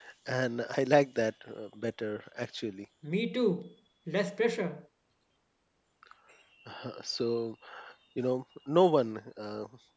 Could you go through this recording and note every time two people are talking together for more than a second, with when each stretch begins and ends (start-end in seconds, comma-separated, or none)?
none